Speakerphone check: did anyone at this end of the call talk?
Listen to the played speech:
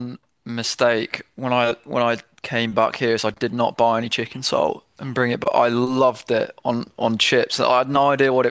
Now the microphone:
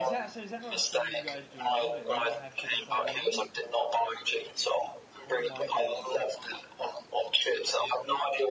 Yes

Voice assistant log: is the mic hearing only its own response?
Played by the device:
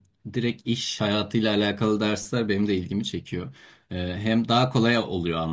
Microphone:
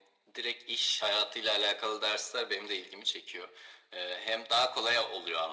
Yes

